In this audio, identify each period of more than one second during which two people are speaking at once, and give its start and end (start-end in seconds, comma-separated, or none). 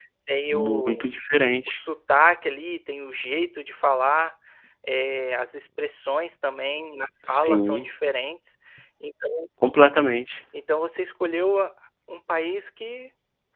none